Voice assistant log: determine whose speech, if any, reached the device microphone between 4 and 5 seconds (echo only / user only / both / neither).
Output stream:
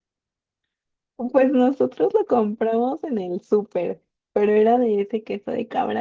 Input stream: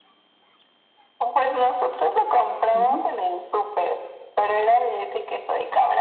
echo only